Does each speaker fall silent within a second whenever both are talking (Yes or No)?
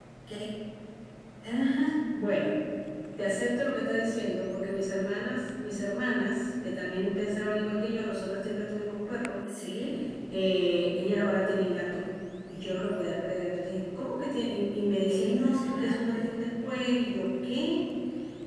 No